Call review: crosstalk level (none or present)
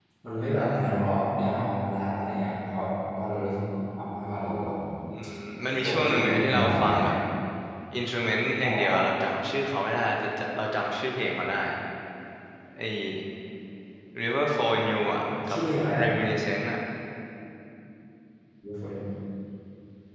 present